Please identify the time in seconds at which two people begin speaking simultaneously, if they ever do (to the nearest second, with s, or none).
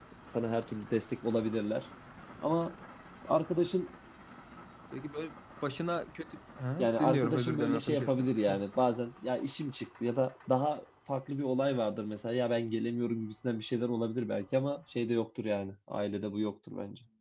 7 s